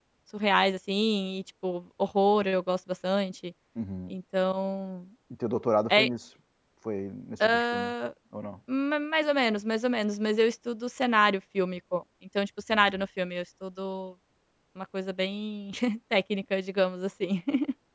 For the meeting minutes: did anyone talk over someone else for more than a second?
No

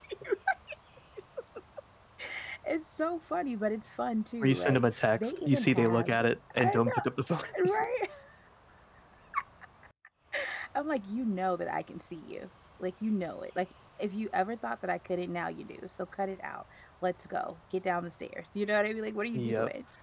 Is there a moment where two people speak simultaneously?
Yes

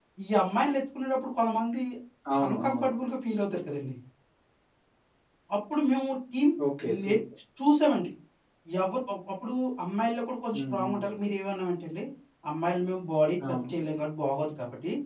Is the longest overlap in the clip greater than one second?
No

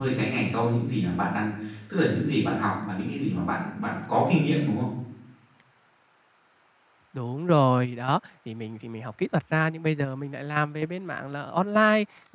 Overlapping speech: No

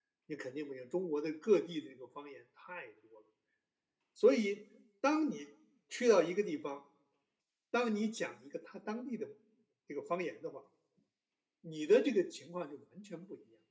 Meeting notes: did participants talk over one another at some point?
No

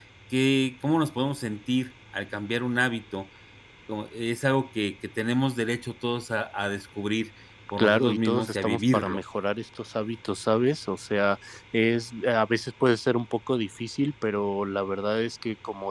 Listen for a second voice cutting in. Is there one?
Yes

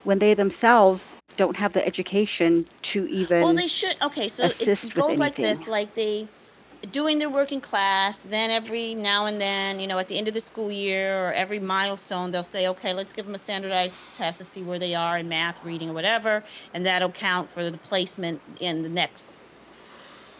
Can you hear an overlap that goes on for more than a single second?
Yes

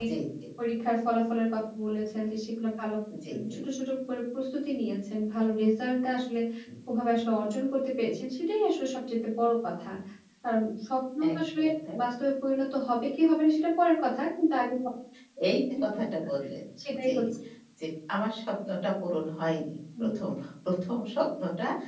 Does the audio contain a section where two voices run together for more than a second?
No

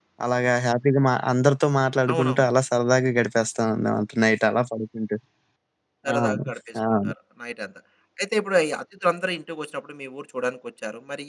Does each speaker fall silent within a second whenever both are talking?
Yes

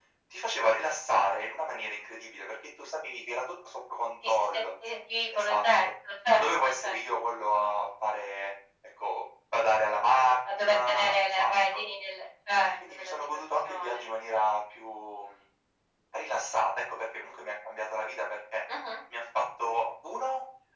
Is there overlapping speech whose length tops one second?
Yes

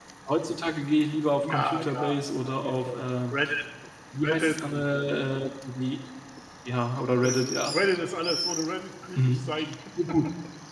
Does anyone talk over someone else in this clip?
Yes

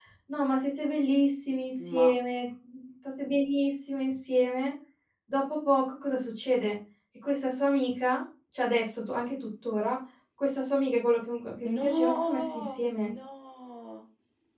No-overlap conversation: No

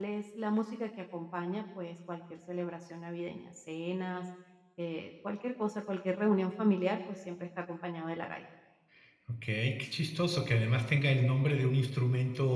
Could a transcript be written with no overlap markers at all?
Yes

